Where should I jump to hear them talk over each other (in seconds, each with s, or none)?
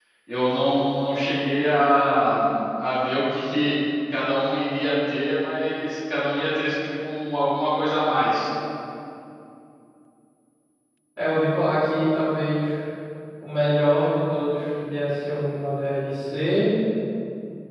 none